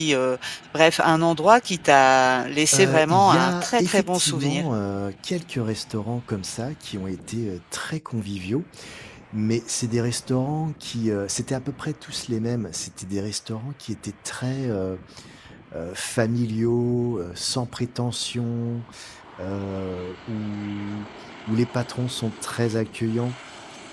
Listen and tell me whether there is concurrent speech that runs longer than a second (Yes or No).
Yes